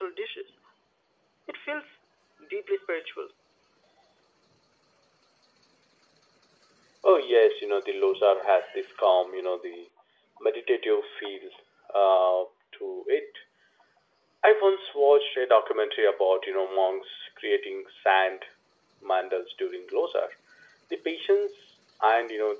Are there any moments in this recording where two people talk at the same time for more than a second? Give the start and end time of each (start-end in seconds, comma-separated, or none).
none